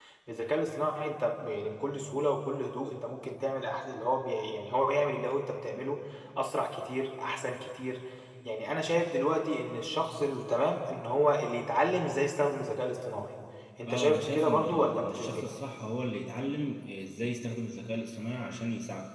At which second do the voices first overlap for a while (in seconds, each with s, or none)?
13.9 s